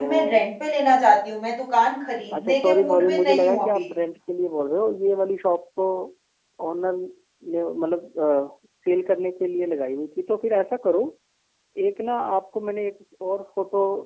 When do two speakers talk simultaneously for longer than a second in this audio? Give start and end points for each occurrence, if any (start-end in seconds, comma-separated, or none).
2.4-3.9